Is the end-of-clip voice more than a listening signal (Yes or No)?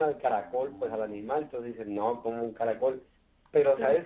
No